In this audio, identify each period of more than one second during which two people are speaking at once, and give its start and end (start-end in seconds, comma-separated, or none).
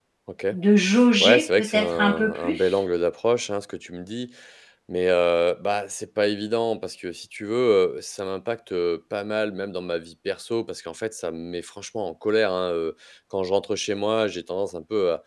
1.2-2.7